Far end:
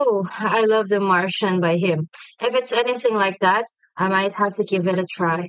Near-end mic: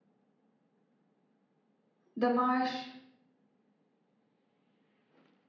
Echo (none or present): none